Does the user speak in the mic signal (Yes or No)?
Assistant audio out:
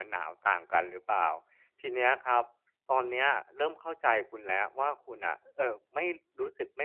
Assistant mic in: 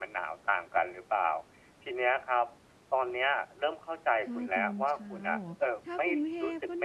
Yes